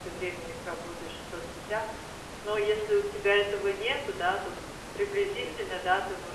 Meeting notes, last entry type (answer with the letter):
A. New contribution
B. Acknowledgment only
B